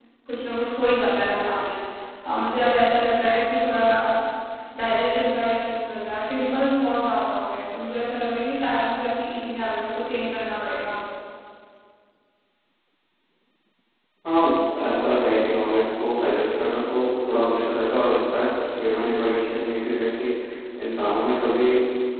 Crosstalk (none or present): none